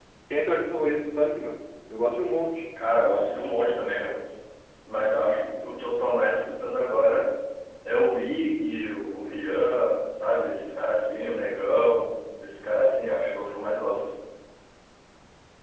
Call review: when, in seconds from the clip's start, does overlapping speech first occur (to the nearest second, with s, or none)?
none